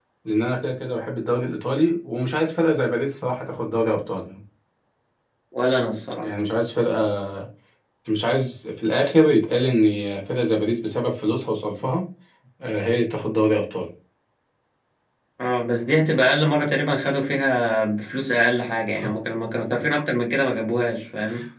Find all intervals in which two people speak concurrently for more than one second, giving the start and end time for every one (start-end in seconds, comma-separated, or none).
none